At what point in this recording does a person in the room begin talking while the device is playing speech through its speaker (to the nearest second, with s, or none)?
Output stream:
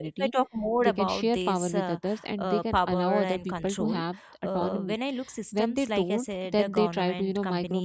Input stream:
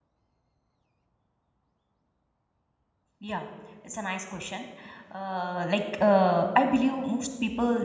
3 s